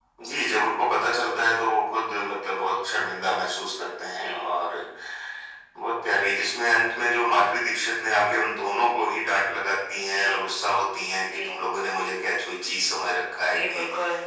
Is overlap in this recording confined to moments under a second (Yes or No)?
Yes